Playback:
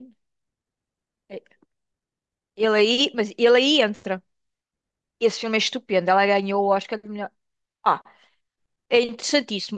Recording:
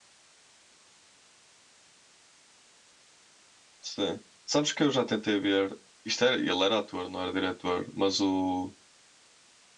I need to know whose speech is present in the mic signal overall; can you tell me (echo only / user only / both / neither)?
user only